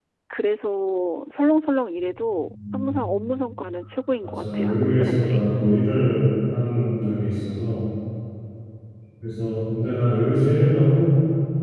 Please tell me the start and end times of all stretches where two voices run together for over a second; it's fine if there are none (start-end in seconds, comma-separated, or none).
4.2-5.4